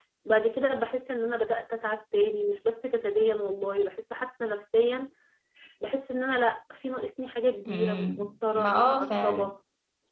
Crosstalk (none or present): present